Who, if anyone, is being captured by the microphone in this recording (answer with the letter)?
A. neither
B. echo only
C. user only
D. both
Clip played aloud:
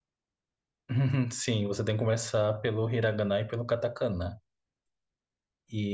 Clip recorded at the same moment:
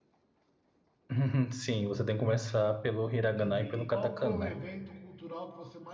D